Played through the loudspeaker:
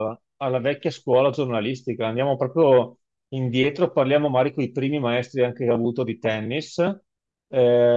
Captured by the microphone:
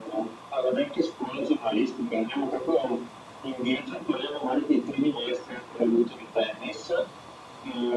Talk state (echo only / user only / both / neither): echo only